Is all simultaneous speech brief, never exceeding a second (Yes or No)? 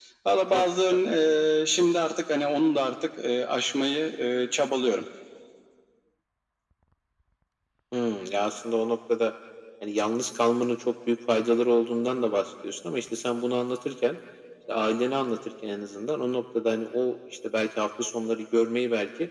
Yes